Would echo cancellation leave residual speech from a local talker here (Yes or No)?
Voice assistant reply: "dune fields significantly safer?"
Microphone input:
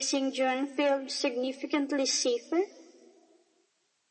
No